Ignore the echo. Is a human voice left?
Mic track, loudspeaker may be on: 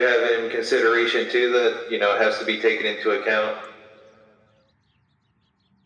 No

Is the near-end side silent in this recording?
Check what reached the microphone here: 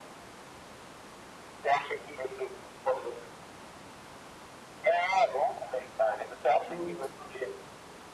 No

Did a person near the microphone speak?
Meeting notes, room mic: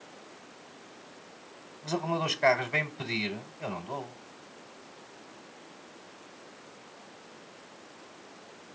Yes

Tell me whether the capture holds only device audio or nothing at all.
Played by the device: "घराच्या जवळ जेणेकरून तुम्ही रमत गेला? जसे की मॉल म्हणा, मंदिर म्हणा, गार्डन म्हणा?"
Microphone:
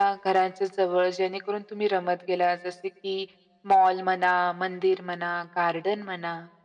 Yes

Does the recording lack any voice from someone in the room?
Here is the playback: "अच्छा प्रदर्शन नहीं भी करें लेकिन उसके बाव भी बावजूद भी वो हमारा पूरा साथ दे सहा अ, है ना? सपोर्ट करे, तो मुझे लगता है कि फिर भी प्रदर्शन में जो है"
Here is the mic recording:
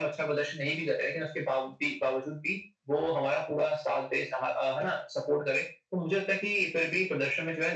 Yes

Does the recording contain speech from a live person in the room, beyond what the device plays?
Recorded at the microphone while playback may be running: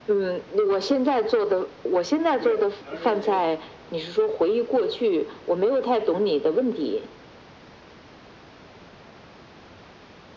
Yes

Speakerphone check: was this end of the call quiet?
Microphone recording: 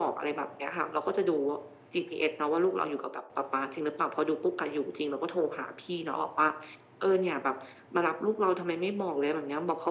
Yes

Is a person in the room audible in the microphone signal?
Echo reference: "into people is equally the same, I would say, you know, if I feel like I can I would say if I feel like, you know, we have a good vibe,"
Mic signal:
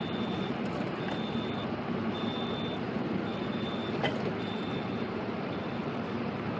No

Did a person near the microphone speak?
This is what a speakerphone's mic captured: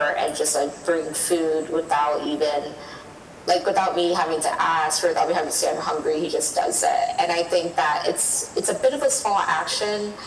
No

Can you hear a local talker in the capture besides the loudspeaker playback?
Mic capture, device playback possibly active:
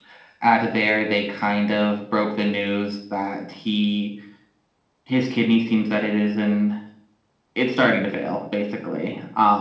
No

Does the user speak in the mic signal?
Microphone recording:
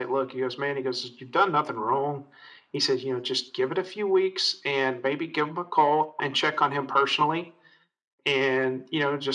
No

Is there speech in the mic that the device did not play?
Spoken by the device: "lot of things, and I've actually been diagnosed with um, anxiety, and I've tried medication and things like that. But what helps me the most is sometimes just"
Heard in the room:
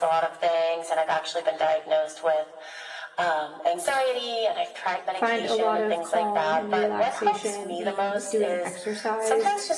Yes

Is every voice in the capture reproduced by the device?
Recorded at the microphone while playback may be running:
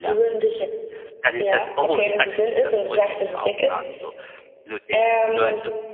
No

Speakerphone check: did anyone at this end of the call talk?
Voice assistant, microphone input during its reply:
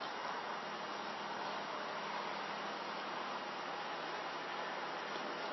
No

